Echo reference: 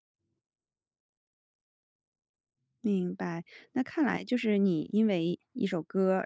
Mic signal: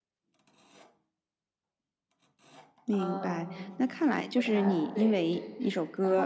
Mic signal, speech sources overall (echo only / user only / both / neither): both